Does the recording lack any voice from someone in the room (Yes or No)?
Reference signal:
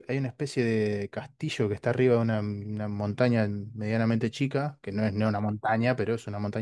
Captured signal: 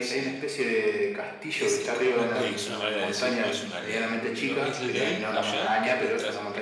No